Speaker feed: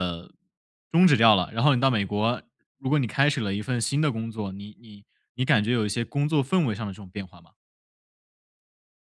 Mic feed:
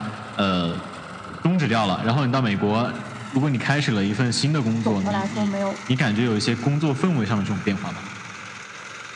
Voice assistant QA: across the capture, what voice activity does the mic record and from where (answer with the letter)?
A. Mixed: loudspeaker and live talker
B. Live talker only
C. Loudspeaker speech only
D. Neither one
A